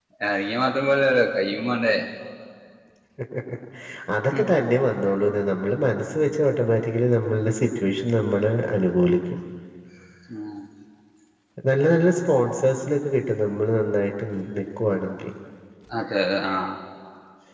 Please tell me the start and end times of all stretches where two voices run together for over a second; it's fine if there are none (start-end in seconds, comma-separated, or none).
none